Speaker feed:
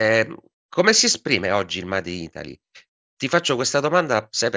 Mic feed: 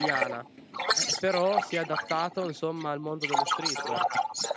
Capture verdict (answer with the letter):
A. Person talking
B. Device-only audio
A